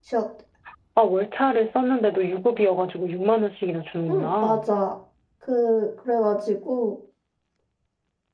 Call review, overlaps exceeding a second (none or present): none